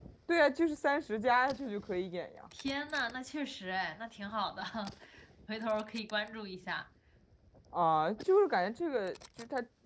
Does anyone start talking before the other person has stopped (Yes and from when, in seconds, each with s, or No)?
No